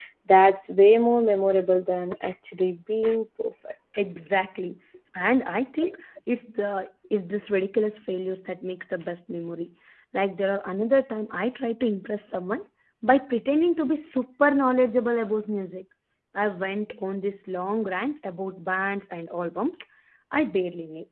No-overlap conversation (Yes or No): Yes